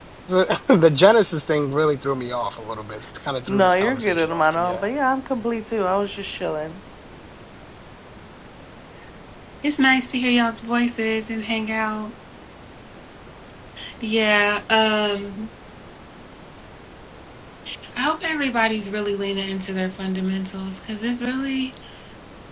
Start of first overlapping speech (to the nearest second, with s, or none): 3 s